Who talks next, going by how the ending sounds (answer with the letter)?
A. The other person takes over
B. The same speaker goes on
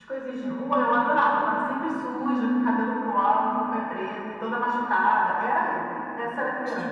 A